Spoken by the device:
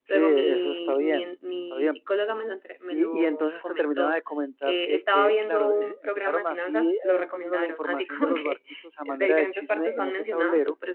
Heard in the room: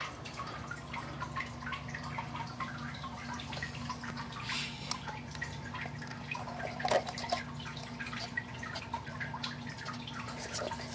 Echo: none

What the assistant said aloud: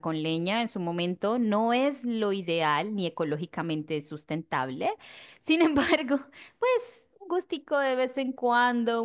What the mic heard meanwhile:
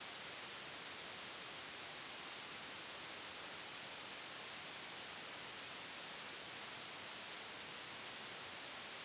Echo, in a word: none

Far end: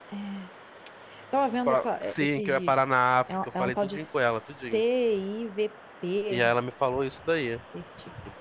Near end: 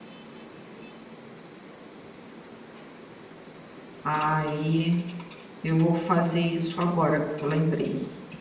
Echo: none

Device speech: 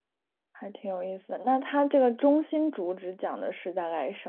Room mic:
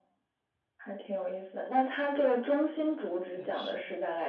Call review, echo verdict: present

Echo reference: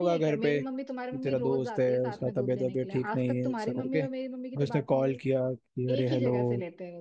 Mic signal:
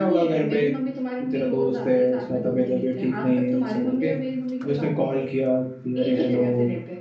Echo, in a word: present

